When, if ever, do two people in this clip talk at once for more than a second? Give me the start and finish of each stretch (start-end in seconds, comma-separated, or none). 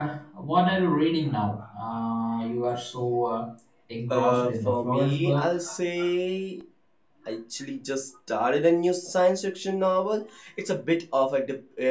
4.1-5.6